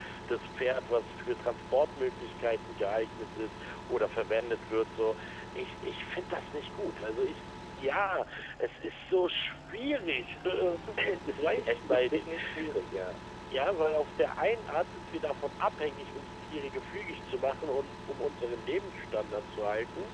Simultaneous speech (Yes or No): Yes